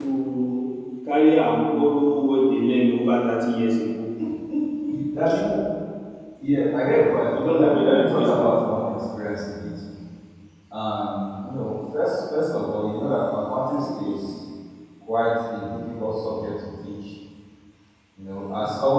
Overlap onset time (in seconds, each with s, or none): 7.3 s